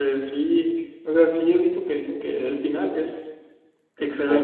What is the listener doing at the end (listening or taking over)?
taking over